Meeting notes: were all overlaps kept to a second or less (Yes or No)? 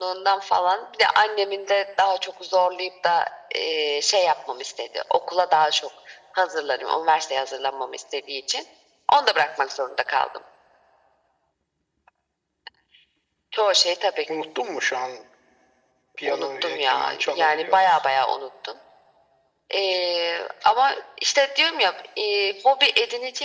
No